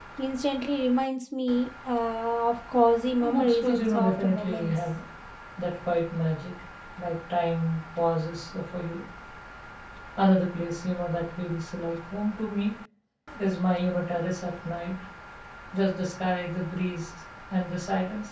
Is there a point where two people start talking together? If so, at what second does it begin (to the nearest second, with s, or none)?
3 s